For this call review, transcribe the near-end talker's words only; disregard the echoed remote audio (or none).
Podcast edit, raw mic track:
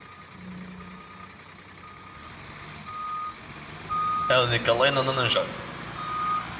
é a única lane onde eu não jogo.